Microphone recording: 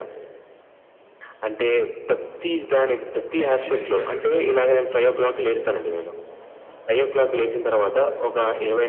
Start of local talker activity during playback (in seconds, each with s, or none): 3.4 s